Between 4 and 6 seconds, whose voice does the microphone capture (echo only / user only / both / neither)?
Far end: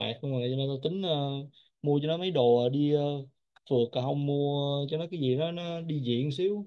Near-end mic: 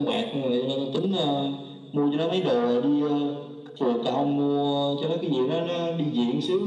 echo only